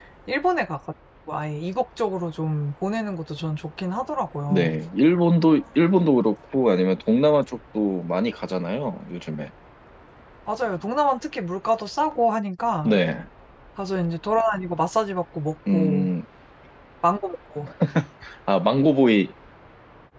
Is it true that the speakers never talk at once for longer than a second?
Yes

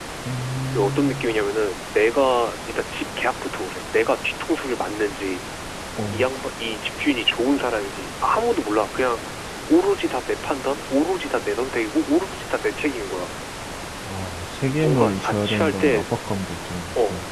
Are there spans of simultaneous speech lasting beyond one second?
Yes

